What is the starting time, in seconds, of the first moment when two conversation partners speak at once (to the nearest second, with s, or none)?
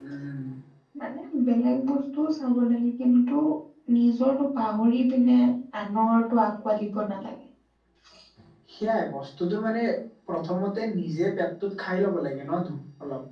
none